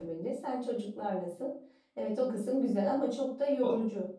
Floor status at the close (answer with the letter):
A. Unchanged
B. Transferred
B